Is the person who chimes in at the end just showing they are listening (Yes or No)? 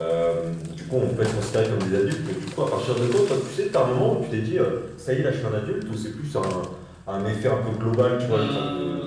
Yes